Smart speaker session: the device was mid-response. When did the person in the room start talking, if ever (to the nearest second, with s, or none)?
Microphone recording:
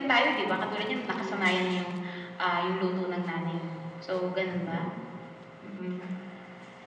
1 s